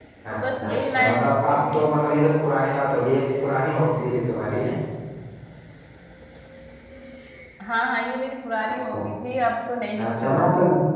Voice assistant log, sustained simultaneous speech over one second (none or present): present